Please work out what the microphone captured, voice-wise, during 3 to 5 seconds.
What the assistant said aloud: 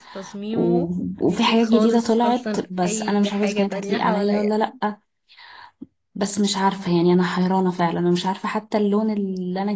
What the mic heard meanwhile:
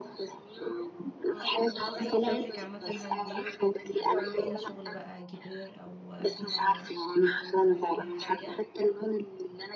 both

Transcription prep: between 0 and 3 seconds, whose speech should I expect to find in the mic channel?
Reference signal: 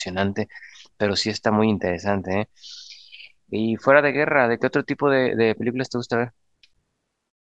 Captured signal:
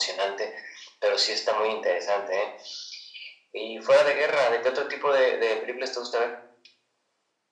echo only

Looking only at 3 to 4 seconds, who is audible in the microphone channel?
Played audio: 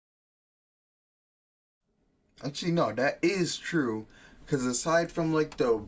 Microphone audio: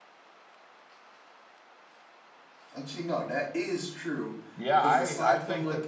echo only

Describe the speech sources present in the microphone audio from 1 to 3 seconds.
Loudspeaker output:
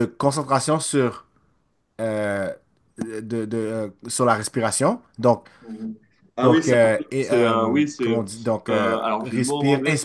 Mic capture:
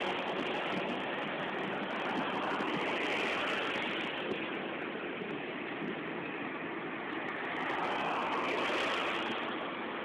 neither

